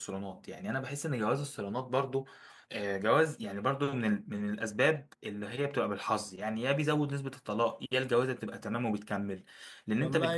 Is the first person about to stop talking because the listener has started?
Yes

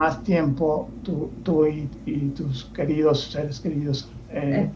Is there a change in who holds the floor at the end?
No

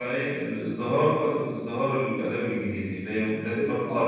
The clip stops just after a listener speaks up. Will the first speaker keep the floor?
No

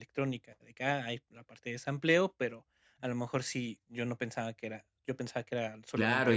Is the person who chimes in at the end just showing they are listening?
No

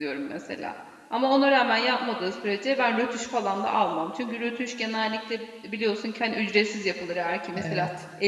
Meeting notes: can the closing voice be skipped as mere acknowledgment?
Yes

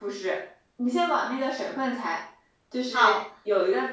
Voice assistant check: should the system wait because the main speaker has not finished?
Yes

